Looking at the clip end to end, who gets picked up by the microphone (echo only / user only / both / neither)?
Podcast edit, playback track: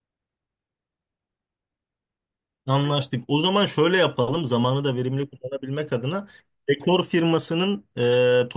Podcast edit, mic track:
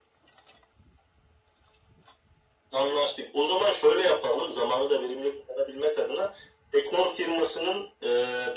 echo only